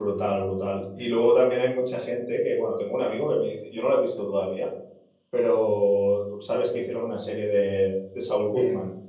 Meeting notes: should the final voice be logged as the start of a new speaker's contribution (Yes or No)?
Yes